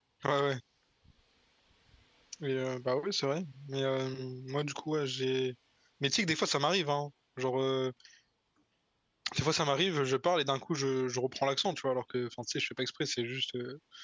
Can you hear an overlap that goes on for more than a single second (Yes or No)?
No